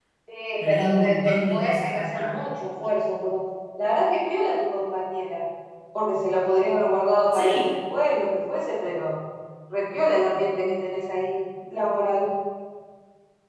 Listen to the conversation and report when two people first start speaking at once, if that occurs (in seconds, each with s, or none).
0.7 s